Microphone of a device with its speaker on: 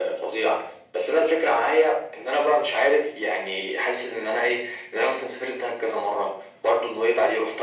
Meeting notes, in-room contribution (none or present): none